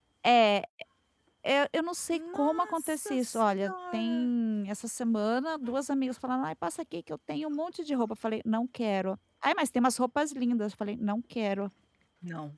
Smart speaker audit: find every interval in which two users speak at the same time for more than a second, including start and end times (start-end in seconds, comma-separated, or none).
2.1-4.3